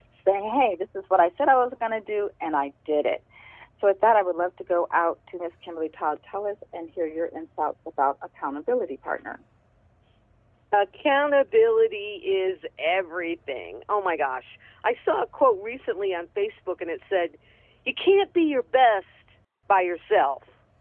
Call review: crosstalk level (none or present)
none